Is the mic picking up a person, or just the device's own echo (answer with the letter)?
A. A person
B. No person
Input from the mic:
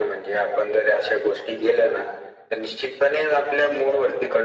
B